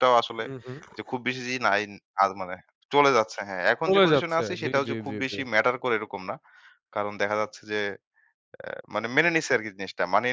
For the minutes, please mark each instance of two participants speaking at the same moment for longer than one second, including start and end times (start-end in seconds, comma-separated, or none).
3.9-5.4